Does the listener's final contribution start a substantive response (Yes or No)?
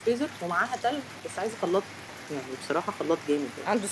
No